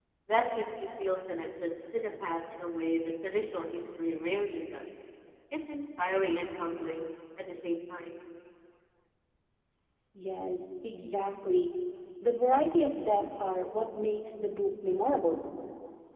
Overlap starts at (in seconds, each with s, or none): none